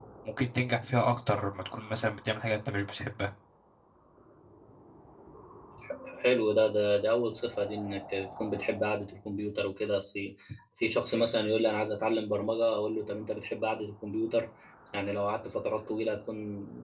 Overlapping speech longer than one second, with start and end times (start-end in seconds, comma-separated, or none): none